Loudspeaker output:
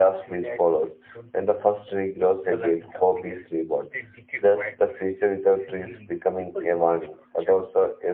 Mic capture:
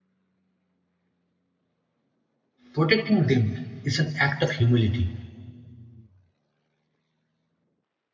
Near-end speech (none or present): present